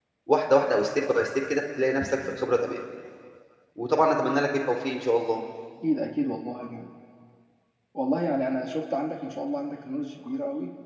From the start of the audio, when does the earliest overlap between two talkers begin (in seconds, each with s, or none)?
none